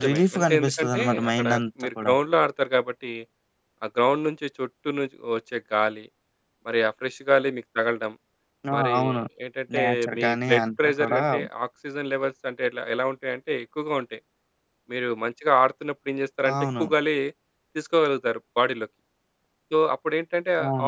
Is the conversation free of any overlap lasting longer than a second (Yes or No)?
No